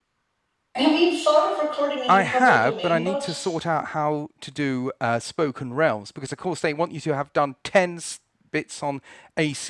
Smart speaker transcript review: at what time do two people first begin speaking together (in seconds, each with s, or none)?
2.1 s